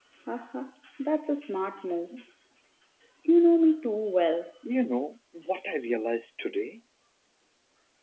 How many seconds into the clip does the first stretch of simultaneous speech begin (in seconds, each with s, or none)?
none